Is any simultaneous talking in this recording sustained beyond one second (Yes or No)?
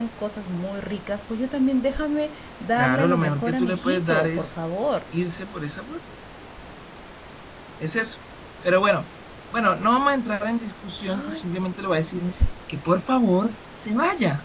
Yes